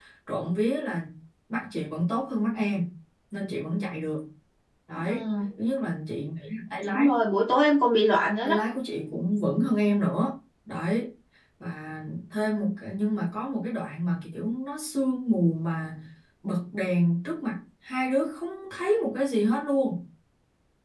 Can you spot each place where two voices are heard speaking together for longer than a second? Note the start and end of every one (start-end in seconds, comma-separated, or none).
none